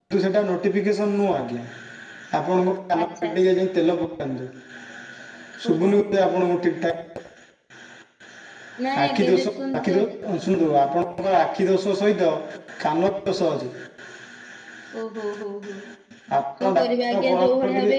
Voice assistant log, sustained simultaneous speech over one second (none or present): present